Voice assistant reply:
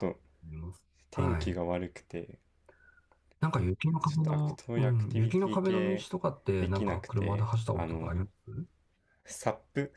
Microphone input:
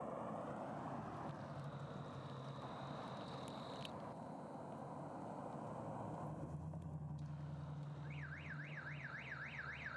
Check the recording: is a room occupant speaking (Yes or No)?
No